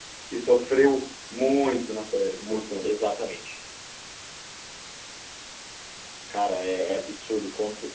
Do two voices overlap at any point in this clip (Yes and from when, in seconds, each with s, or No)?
No